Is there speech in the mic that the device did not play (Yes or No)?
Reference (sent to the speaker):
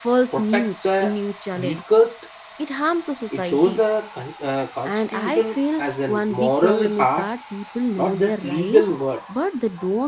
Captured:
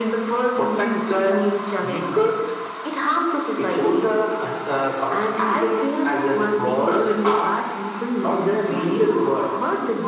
No